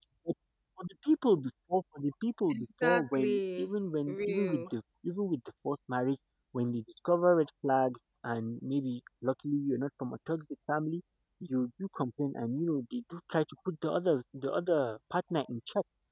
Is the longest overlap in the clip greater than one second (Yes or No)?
Yes